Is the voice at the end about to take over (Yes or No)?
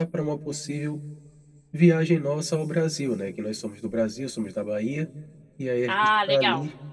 No